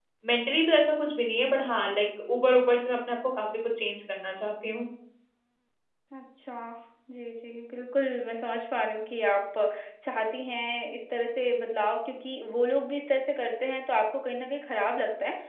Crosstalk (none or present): none